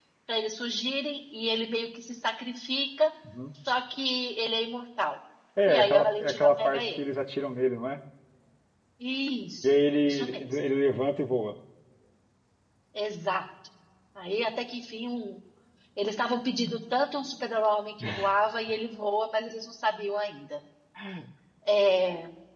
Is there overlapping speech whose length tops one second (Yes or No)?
Yes